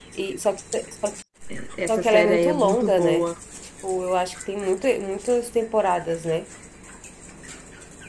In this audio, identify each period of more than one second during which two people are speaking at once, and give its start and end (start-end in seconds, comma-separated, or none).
1.9-3.3